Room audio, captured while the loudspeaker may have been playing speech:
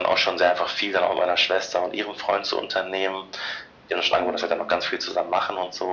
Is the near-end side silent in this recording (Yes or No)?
No